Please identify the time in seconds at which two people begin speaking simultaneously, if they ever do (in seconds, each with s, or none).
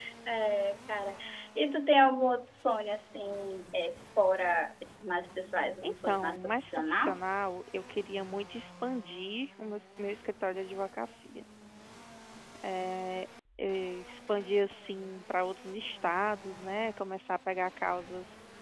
5.8 s